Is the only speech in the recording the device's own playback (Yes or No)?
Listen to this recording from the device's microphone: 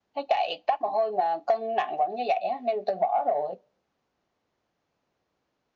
Yes